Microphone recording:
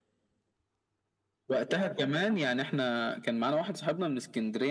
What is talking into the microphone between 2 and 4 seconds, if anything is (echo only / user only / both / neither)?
echo only